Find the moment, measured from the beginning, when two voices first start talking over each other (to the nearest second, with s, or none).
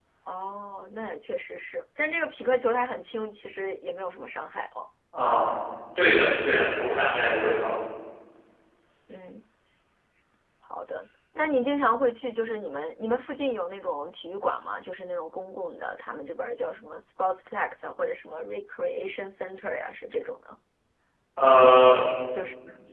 none